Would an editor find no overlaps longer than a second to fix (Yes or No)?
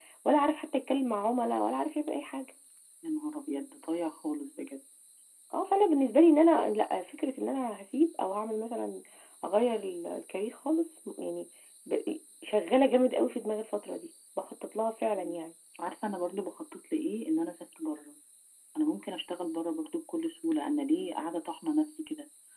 Yes